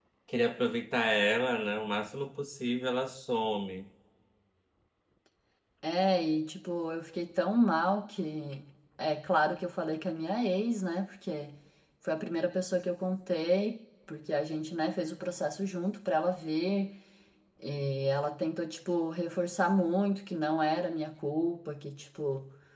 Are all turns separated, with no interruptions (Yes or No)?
Yes